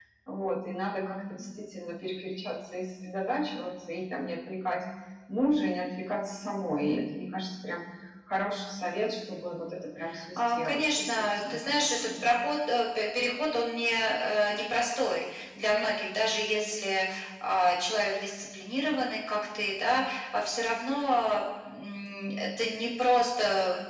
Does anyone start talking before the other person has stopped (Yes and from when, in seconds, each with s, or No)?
Yes, from 10.4 s